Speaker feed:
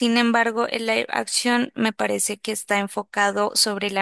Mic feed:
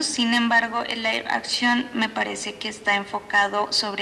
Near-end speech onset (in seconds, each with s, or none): none